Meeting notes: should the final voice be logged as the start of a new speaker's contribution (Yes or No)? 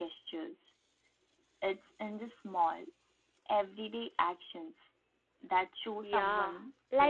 Yes